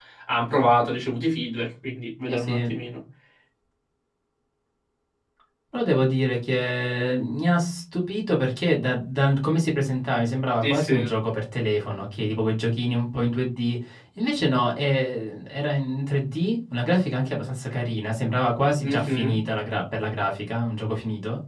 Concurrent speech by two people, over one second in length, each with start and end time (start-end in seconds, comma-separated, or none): none